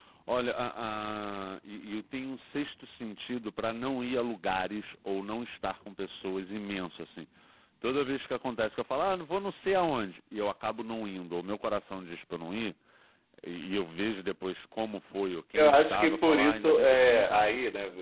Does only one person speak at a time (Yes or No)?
No